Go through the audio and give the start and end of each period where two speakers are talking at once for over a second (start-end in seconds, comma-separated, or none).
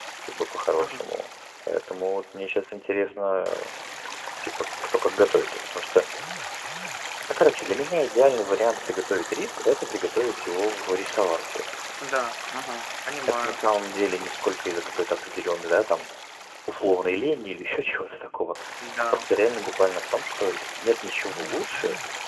none